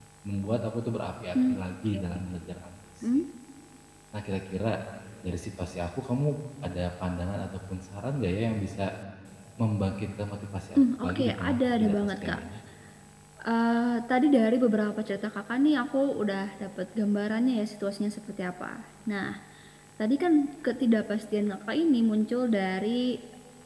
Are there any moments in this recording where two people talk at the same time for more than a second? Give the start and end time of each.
10.8-12.4

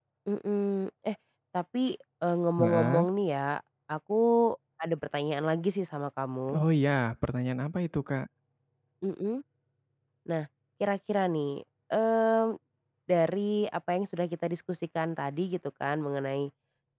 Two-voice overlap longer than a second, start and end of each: none

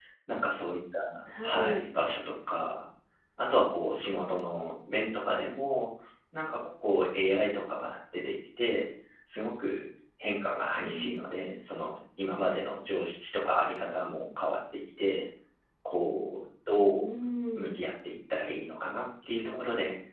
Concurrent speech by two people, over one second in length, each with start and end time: none

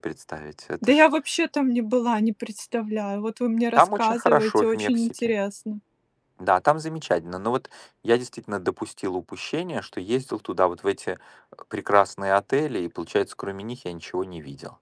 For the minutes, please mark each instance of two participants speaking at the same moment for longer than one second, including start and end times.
3.8-5.1

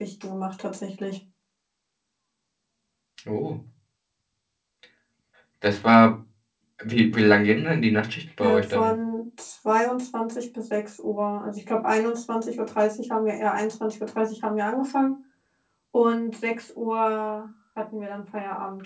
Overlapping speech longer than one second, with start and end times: none

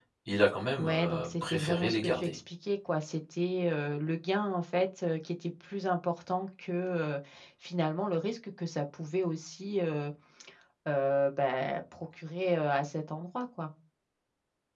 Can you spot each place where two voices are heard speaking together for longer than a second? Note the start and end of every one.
0.8-2.3

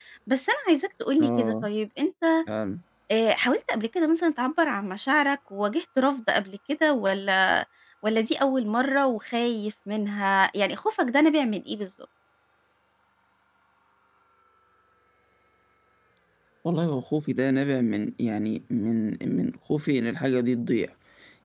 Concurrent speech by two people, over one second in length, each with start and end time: none

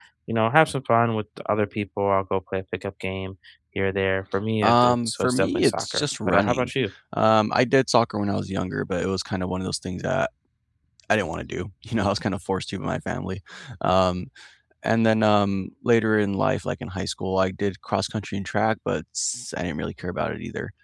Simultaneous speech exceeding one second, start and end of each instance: 4.6-6.7

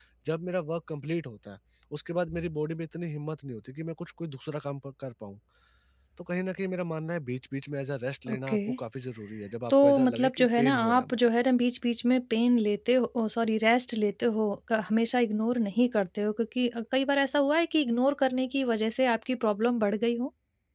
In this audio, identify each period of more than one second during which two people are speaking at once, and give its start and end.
9.7-11.3

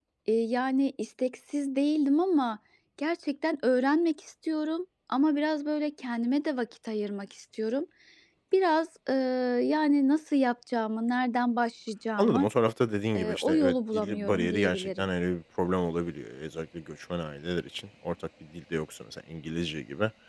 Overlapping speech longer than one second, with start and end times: 13.2-15.1

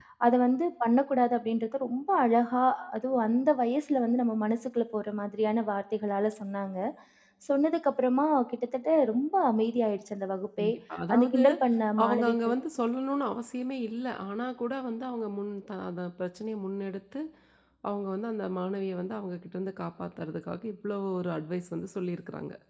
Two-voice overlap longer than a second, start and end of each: none

